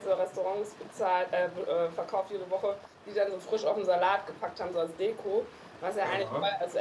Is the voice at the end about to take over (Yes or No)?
No